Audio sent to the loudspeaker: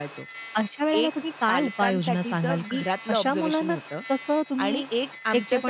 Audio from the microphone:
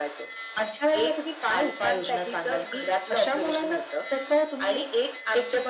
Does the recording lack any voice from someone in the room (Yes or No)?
Yes